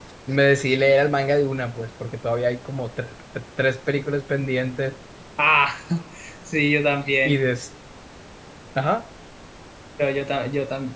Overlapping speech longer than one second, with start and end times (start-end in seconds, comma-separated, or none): none